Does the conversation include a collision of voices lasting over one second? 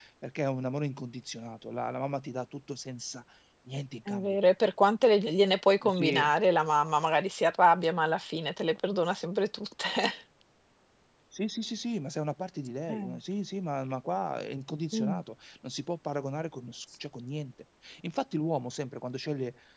No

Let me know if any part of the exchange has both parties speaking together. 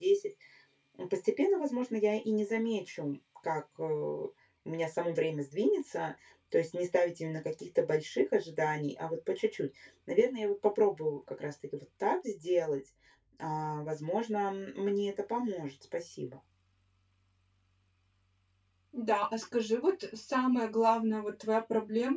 No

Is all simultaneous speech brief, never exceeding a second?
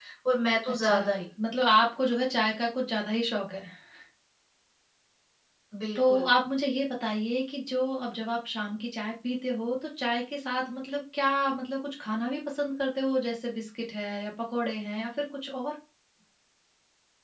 Yes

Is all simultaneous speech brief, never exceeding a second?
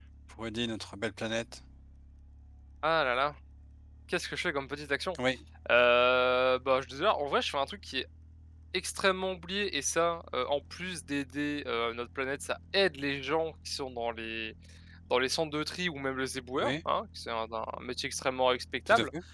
Yes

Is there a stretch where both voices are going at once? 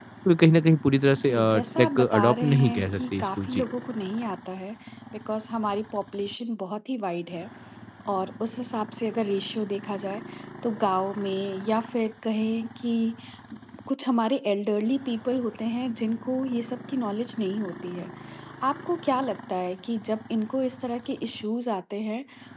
Yes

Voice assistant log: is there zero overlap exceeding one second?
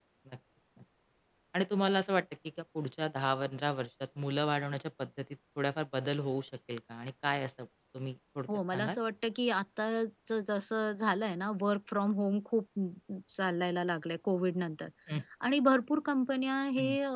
Yes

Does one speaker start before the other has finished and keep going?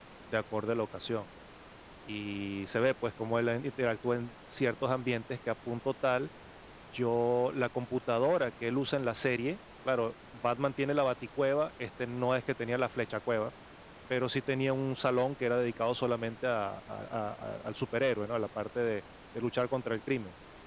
No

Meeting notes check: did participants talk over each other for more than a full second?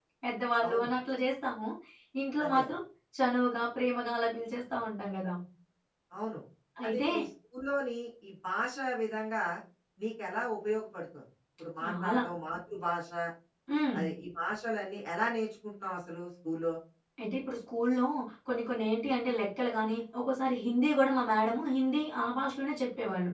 No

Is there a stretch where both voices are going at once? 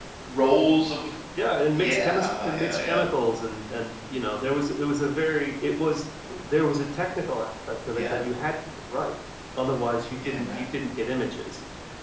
Yes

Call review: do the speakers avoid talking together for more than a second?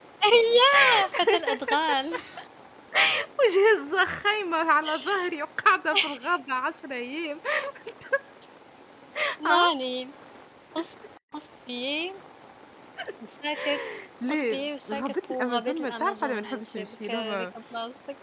No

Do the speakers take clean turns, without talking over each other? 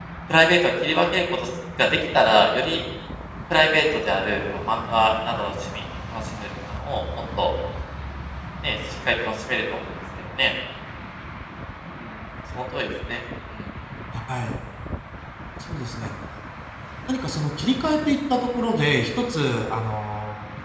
Yes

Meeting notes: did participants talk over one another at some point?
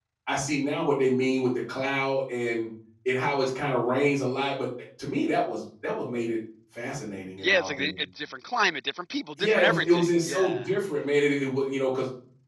Yes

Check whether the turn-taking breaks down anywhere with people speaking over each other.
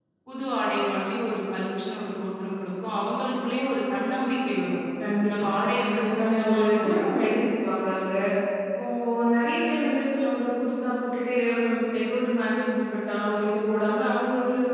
Yes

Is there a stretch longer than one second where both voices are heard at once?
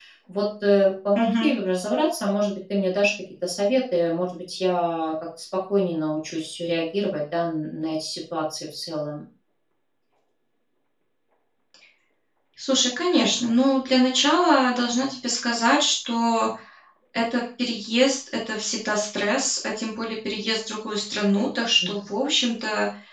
No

